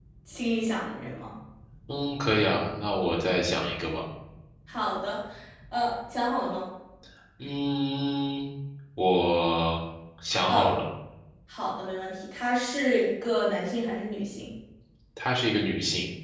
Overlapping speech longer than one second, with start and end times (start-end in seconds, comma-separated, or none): none